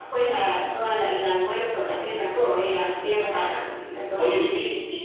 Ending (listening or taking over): taking over